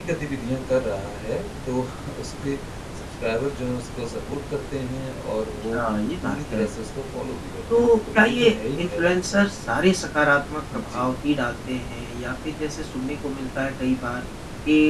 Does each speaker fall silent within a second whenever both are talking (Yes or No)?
No